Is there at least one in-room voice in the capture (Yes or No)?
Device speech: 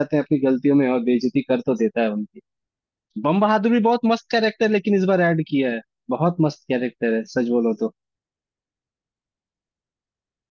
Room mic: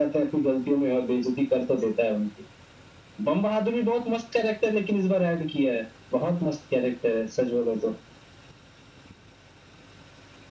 No